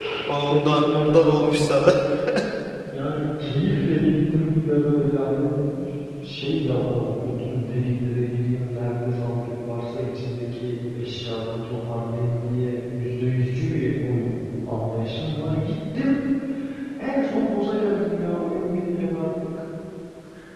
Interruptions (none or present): present